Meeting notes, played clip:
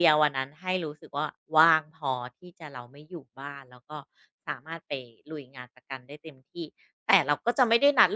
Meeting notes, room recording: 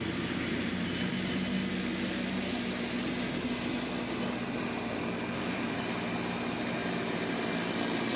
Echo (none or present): none